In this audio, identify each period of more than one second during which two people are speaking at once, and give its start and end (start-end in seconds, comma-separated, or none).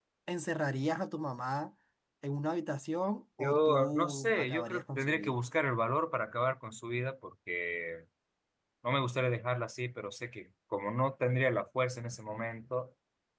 3.4-5.3